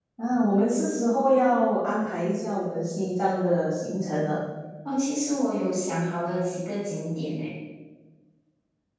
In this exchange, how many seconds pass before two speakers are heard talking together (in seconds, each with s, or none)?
none